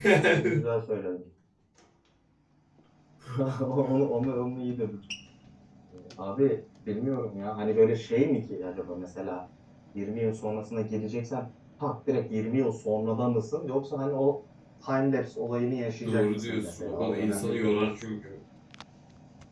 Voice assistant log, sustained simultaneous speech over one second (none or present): present